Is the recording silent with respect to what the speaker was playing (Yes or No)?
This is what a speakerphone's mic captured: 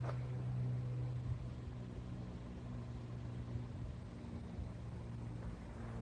Yes